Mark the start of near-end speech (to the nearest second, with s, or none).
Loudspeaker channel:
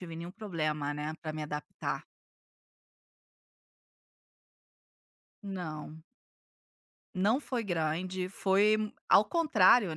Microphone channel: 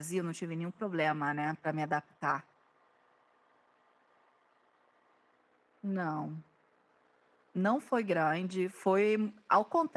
none